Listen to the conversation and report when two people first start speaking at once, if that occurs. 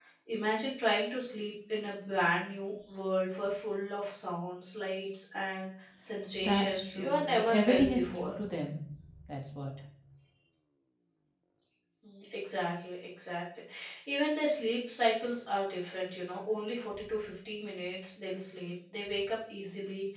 6 s

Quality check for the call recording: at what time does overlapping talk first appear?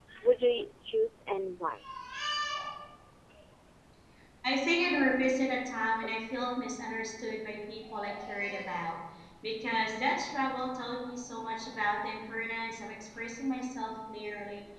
none

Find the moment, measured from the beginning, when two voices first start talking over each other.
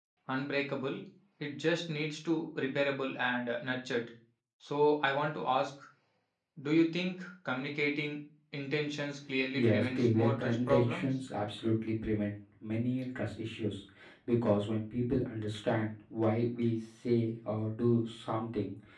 10 s

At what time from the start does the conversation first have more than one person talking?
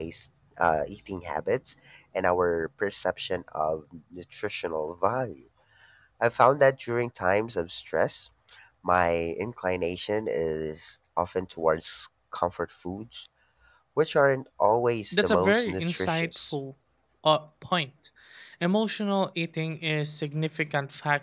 15 s

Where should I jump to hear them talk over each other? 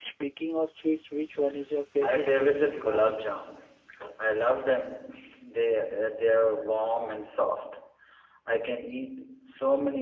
2 s

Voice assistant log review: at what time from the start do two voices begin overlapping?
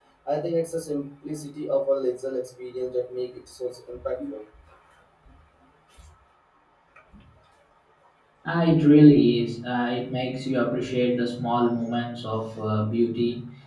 none

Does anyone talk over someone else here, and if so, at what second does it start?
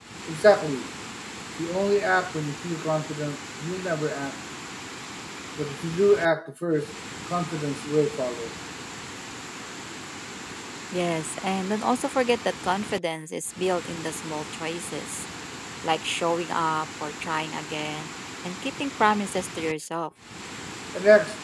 none

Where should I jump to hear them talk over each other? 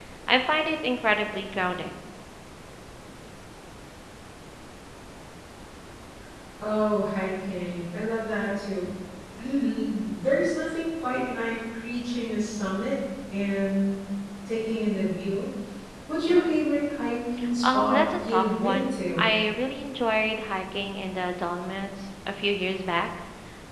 18 s

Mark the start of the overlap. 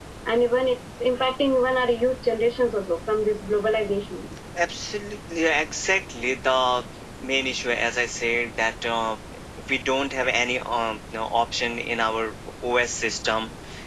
none

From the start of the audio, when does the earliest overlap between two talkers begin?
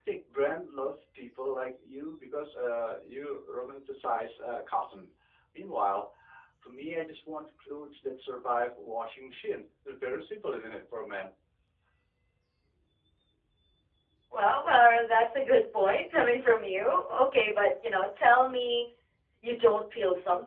none

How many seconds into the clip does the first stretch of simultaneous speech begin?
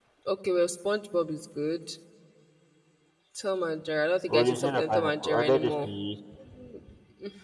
4 s

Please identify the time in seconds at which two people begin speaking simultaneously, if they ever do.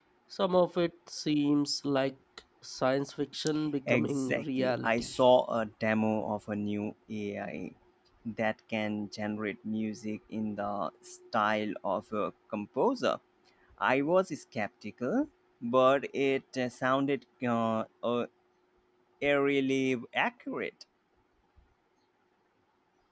4 s

